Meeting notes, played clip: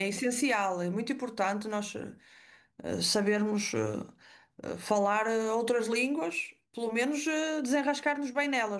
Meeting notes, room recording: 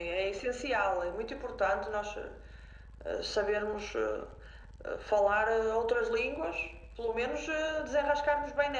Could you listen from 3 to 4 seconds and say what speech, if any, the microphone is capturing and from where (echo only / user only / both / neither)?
echo only